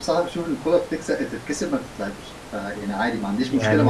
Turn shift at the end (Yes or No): No